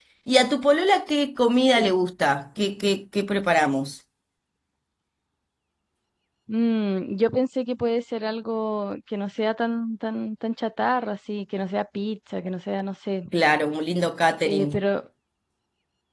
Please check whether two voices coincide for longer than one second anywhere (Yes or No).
No